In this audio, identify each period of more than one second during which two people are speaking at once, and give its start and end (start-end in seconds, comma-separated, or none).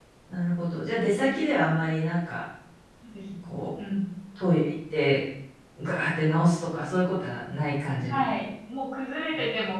none